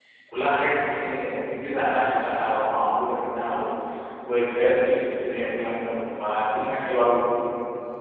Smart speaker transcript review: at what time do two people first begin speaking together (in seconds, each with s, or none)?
none